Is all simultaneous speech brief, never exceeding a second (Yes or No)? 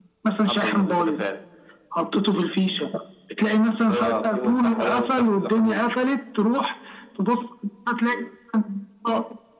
No